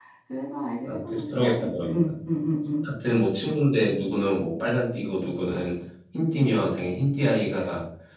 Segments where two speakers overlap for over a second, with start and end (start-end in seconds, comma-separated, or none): 0.8-2.1